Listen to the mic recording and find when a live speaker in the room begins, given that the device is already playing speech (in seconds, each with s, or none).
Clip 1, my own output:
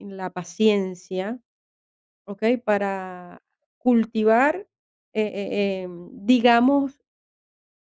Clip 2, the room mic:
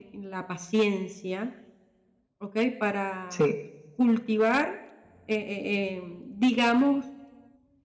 3.3 s